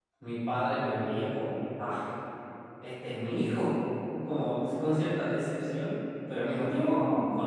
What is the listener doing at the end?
listening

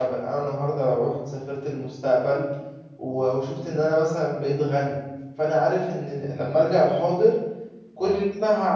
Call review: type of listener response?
listening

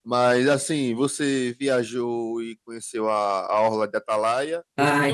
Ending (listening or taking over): taking over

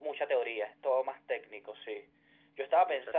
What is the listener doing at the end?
listening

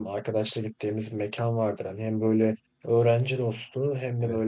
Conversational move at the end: listening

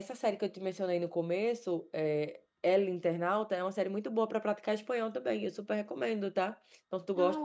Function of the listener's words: listening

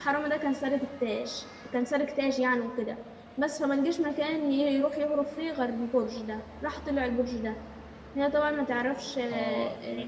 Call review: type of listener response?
taking over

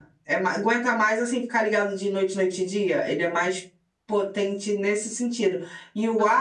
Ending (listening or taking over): listening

